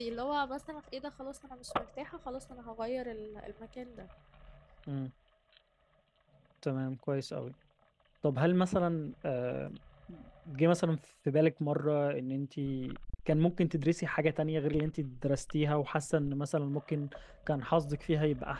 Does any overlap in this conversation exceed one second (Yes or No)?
No